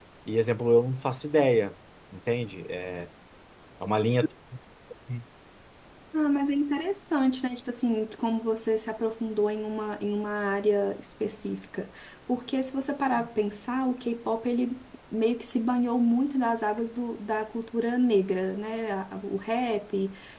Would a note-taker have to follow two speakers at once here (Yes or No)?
No